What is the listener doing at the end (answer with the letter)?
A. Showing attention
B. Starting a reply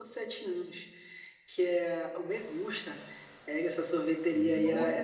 A